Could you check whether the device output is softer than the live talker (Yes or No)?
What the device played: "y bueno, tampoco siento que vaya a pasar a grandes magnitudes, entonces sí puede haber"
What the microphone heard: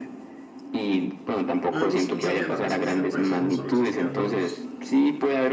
No